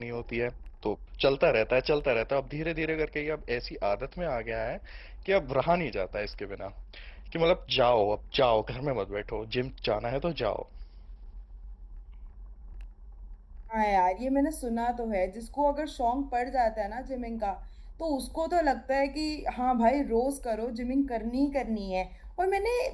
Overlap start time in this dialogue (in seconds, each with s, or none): none